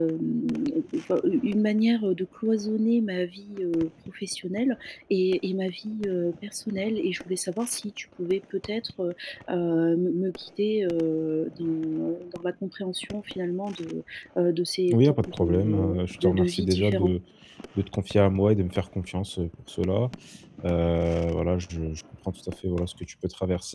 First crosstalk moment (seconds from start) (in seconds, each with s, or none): 14.9 s